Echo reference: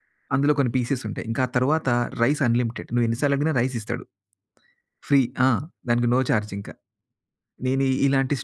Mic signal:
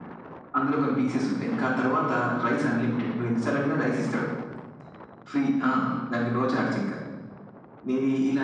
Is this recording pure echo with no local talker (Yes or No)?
Yes